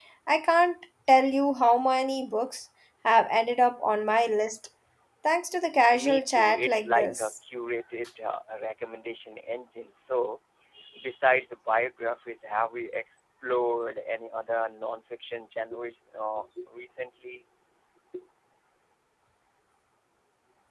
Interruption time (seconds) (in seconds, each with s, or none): 5.9 s